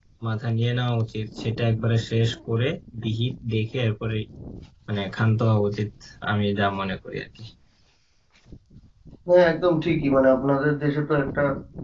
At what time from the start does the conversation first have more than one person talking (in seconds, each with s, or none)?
none